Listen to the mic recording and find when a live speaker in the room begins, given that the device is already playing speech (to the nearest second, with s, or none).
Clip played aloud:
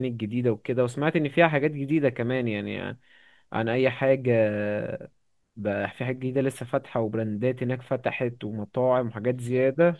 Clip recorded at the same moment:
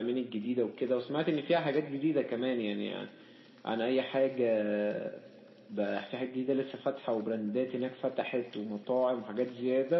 none